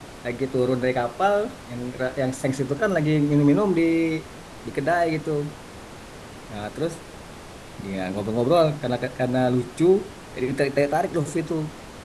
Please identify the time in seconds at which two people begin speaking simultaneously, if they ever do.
none

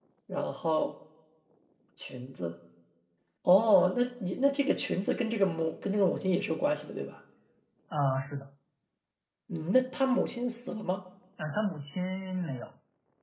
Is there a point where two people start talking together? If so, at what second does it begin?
none

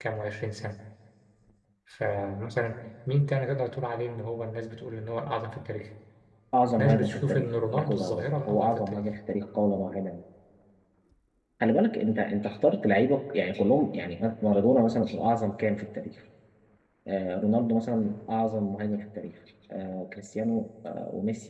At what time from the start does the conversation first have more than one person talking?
6.8 s

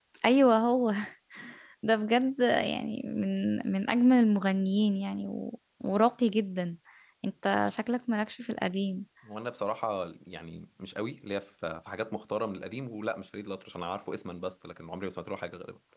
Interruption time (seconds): none

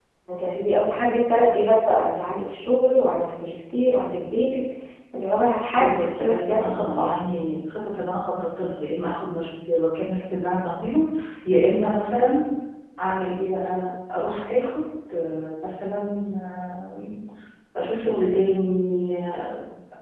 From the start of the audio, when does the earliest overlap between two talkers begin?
5.8 s

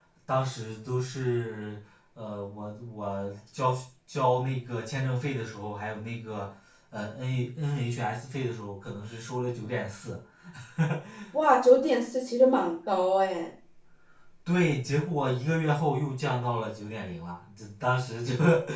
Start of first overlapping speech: none

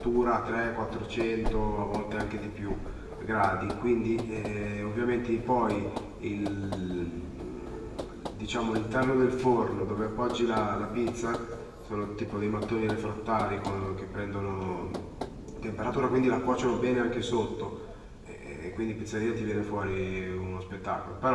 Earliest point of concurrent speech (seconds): none

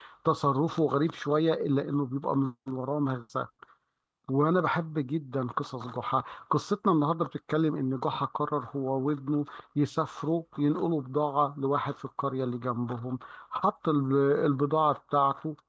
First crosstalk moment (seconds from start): none

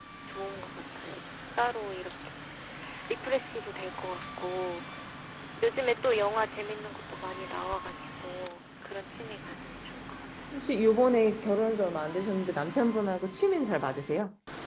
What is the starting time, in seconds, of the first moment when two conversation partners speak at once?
none

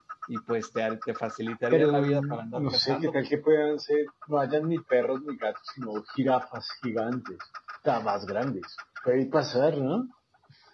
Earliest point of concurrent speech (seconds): 1.7 s

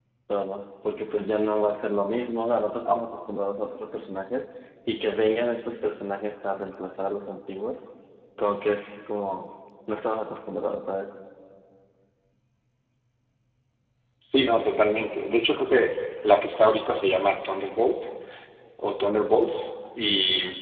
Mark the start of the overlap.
none

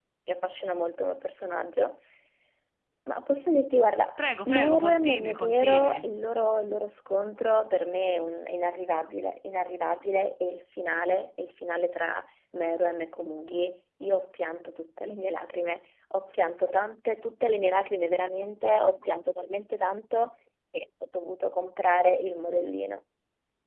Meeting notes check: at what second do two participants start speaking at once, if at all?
4.5 s

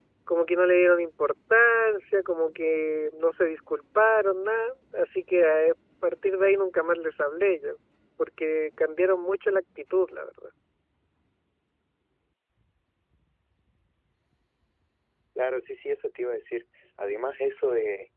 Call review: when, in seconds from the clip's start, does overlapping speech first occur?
none

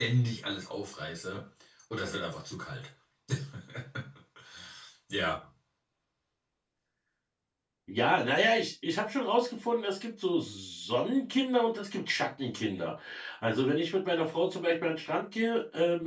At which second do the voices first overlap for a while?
none

